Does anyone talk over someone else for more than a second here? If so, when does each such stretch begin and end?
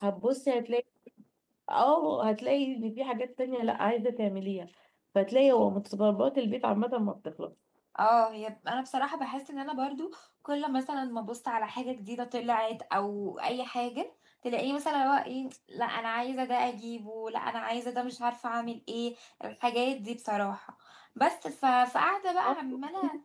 none

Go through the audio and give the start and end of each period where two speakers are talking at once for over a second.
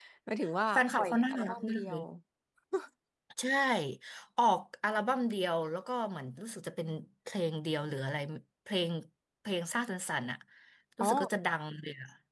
0.7-2.0

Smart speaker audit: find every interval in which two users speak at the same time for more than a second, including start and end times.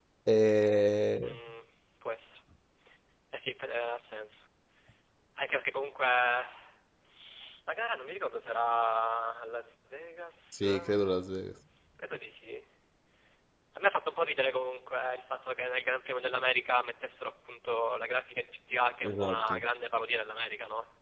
none

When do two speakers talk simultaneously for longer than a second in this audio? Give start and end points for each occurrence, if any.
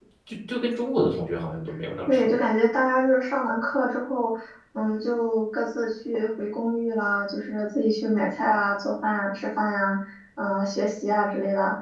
none

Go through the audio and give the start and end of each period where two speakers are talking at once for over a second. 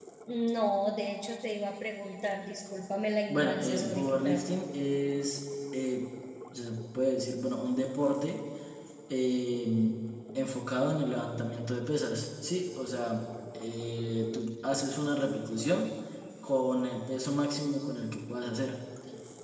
3.3-4.6

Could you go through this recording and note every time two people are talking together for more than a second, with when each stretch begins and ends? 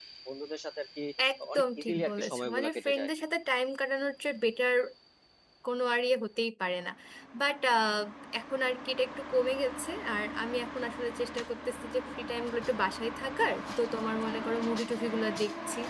1.6-3.1

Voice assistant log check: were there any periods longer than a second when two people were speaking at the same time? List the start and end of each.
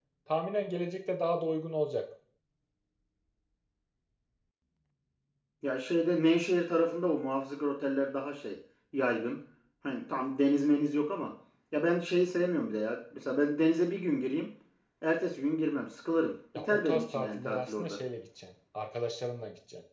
16.5-18.0

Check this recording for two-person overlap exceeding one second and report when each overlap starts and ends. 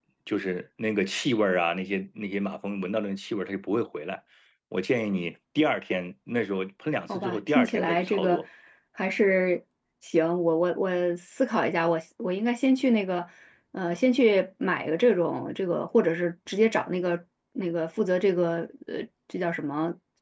7.1-8.4

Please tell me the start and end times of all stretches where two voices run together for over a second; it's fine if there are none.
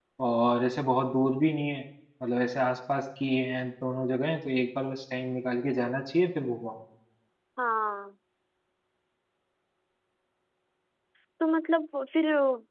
none

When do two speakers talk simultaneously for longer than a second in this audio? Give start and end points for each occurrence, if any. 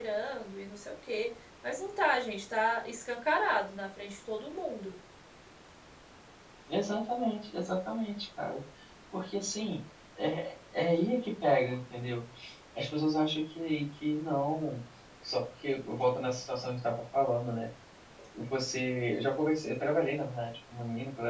none

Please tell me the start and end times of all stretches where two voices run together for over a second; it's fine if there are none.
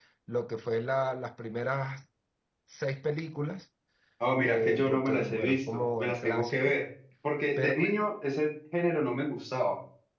4.5-6.8

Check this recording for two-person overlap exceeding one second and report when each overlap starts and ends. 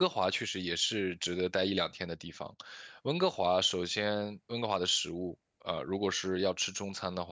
none

